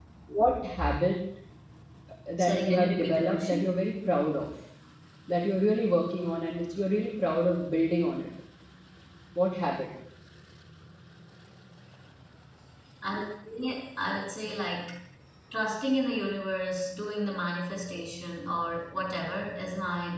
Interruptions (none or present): present